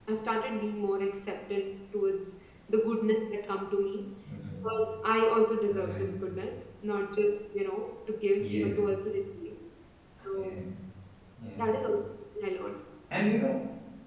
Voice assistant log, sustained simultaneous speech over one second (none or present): none